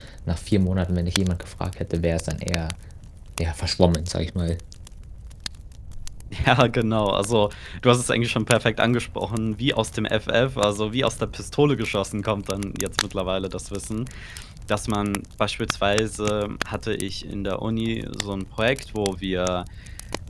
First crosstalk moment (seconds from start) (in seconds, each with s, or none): none